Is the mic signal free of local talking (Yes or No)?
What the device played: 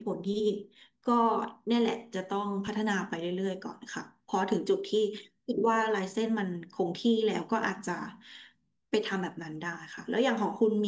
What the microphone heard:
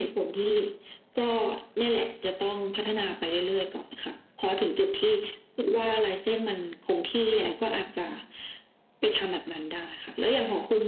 Yes